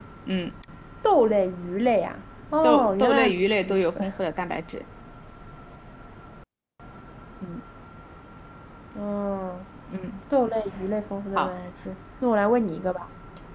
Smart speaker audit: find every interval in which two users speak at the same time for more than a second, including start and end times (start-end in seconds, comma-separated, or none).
2.6-4.0